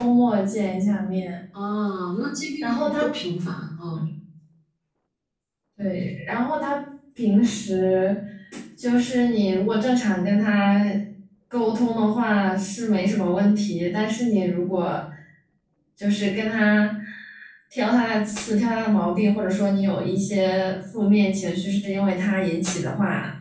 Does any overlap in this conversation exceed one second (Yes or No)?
No